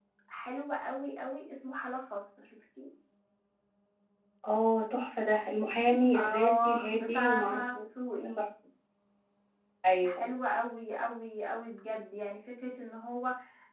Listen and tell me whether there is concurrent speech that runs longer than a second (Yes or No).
Yes